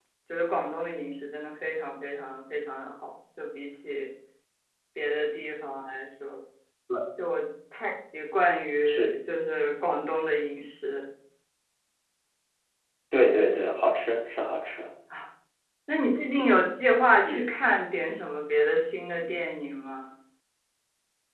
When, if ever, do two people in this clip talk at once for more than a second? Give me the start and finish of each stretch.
none

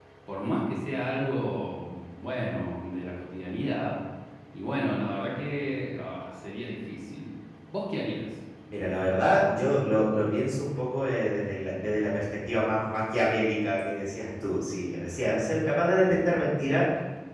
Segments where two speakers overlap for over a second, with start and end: none

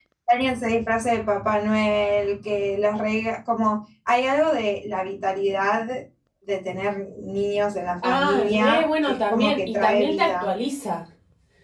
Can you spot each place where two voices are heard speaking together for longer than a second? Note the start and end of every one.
8.0-10.5

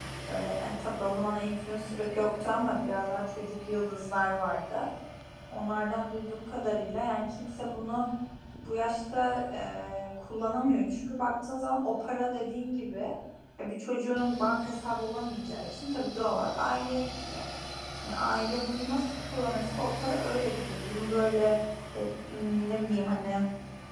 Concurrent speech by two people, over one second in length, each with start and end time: none

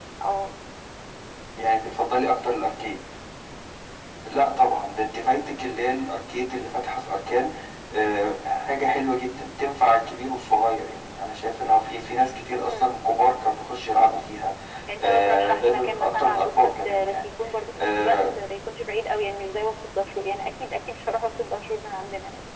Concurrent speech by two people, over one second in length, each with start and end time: 15.0-17.2

